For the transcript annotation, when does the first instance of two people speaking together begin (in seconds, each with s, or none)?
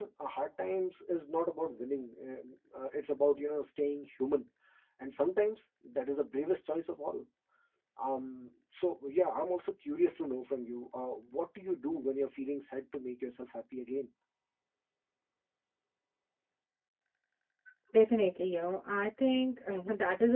none